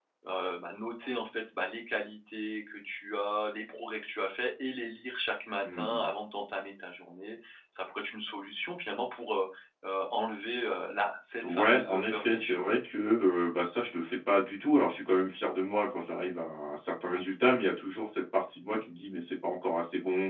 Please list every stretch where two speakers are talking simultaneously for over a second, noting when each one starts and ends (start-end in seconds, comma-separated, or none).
11.4-12.8